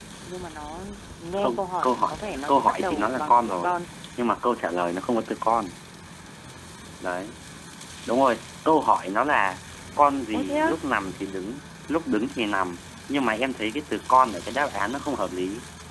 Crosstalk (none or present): present